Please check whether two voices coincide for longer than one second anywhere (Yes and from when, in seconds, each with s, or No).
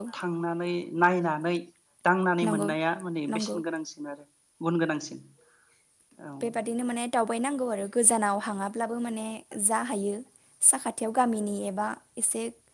No